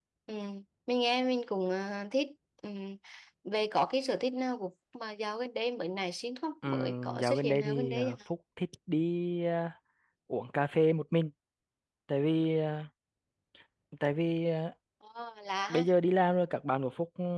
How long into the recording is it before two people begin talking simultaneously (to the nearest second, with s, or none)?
7 s